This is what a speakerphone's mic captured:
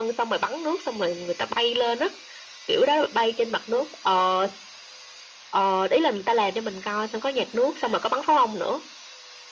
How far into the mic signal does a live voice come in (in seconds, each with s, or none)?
none